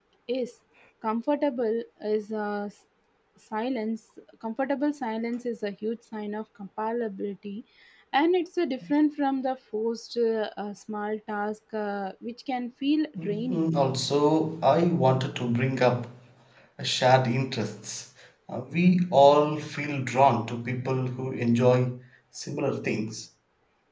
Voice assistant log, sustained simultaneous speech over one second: none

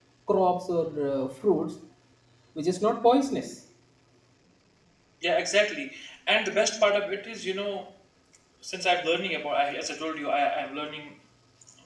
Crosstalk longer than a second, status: none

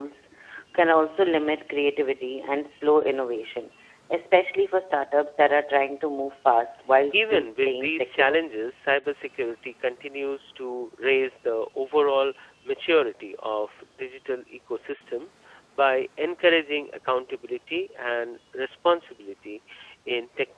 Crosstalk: present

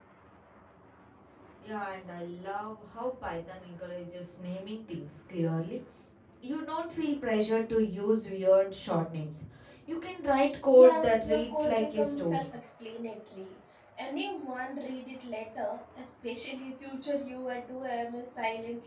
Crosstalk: present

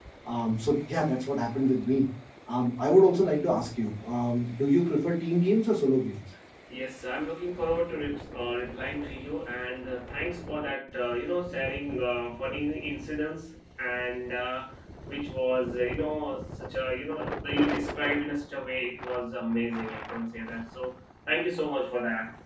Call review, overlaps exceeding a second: none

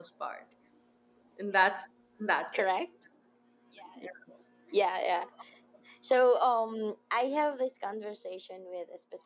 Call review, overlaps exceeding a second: none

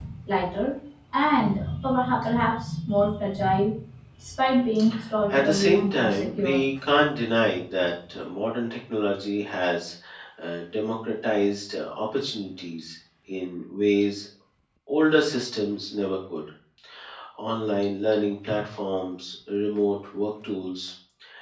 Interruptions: present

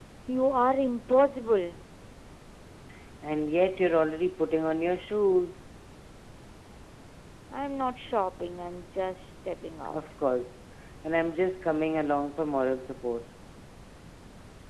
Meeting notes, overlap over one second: none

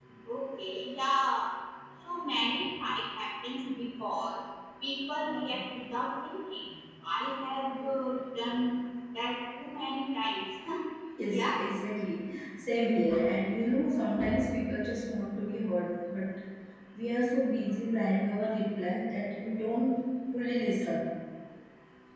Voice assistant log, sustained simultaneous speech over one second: none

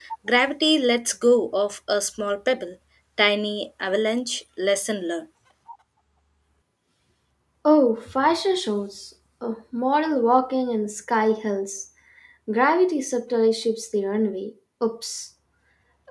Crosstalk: none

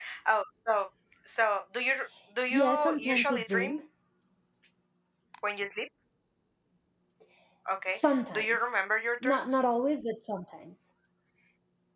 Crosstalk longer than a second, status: present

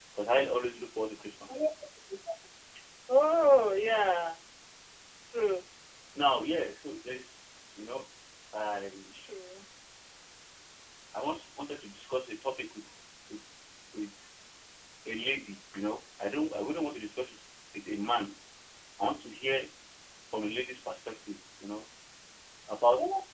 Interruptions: none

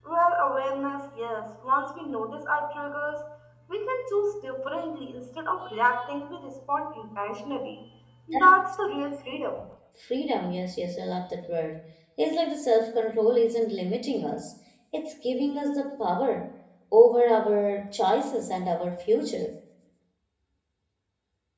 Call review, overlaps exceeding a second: none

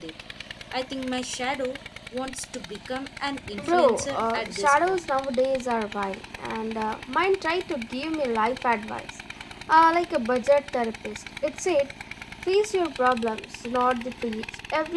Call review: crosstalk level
present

